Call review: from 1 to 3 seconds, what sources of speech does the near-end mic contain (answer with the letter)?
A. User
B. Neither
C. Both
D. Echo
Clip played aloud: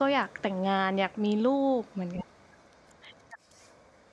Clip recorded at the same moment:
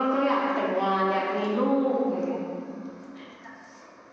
D